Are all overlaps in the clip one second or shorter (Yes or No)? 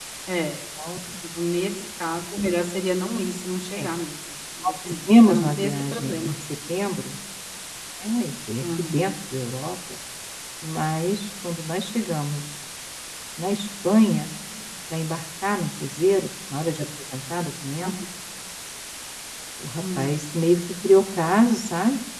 No